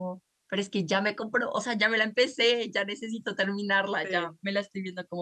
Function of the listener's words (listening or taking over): listening